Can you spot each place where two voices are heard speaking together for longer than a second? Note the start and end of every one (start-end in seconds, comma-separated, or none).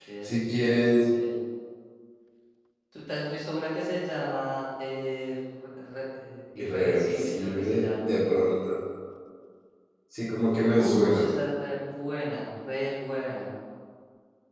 6.5-8.1